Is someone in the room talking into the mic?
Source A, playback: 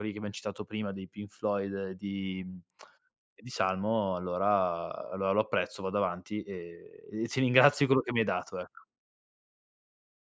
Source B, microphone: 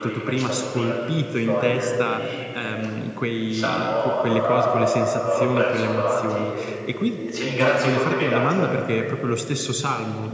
Yes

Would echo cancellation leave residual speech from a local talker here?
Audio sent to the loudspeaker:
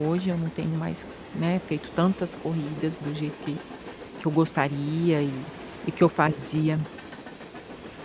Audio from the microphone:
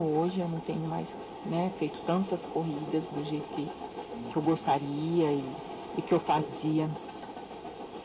Yes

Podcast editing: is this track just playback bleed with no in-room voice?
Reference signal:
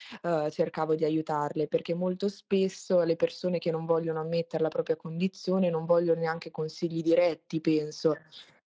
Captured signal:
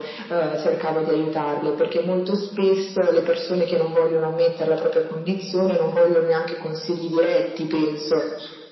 Yes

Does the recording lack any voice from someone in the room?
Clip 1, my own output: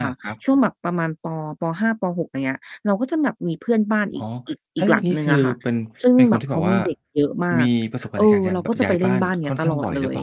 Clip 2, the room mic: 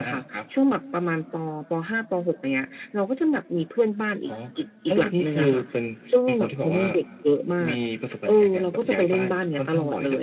Yes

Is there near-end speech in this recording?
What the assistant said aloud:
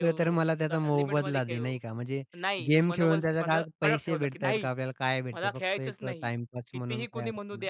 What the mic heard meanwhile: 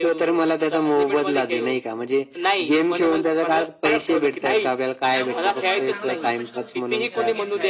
Yes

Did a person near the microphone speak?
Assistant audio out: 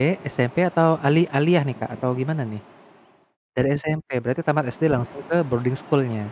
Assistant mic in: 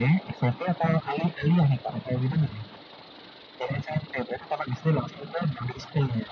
No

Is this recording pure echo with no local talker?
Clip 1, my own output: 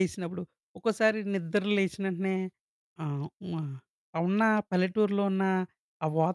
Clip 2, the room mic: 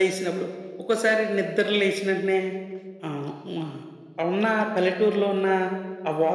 Yes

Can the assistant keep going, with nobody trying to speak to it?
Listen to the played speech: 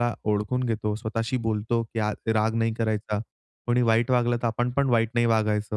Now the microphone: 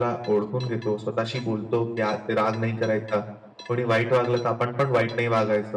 Yes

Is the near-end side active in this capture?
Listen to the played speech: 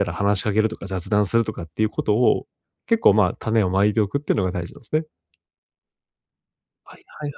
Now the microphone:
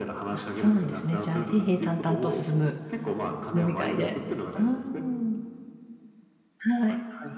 Yes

